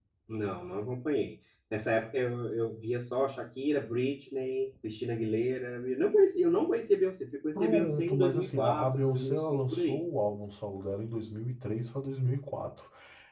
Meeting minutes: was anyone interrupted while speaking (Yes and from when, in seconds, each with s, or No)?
Yes, from 7.6 s